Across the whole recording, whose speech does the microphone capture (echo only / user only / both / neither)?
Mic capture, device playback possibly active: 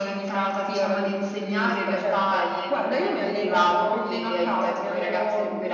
echo only